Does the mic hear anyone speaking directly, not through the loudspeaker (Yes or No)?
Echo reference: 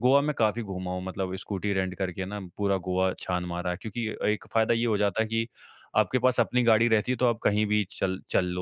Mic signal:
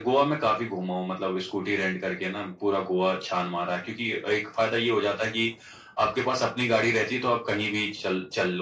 No